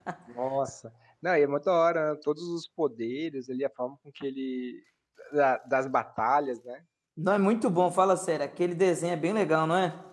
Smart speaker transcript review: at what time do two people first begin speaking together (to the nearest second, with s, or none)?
none